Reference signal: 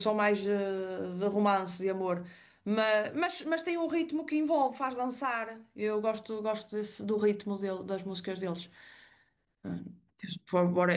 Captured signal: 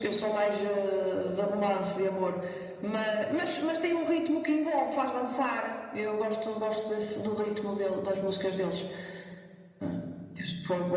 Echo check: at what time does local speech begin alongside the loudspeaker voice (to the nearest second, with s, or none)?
none